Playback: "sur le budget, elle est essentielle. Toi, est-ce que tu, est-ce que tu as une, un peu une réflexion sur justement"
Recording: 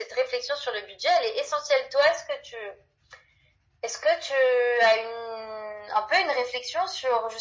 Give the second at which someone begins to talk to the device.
none

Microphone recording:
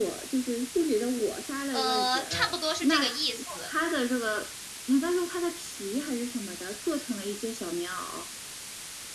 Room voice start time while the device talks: 1.7 s

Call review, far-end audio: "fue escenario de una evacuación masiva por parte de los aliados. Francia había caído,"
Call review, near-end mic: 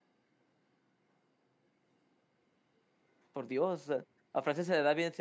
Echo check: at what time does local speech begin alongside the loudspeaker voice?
3.3 s

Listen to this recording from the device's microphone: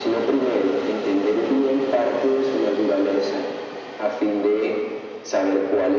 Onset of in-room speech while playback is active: none

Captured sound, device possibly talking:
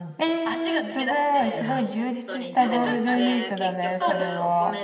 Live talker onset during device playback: 1.5 s

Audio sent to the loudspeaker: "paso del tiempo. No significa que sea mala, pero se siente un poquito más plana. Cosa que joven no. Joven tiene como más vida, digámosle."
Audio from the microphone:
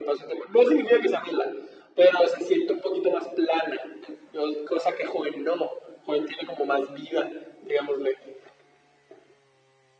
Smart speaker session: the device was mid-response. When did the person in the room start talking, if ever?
none

